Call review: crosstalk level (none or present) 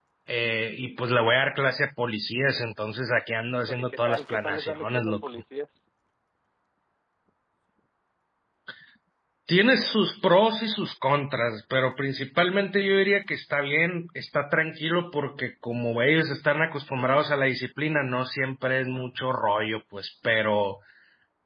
present